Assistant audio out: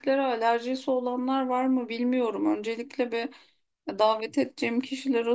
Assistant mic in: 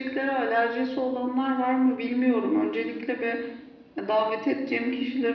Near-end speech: none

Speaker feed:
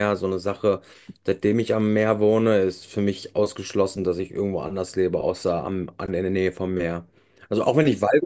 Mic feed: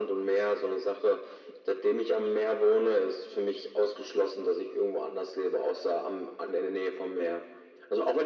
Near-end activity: none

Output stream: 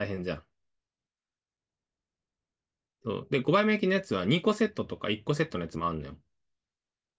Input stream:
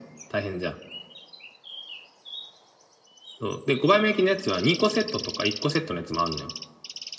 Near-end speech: none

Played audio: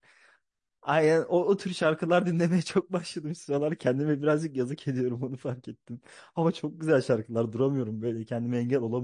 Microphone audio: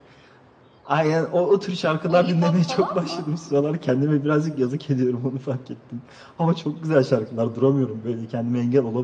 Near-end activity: present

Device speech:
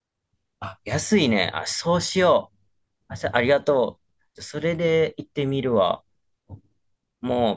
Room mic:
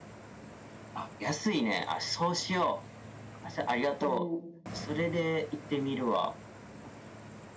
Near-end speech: present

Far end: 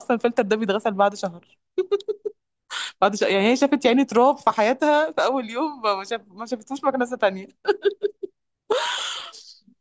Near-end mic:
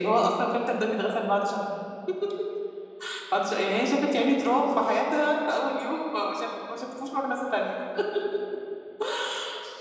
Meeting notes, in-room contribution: none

